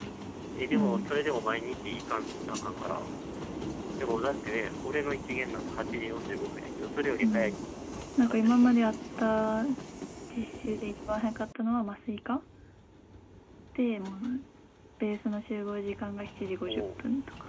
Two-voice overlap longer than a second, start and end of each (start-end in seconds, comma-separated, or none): 8.2-9.7